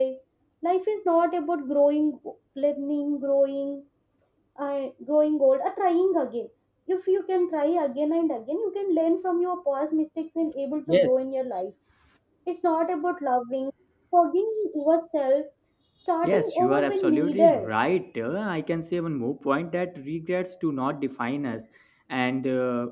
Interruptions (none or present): present